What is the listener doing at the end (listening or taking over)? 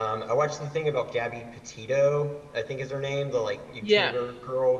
listening